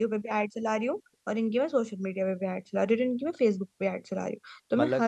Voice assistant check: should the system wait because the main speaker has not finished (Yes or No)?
Yes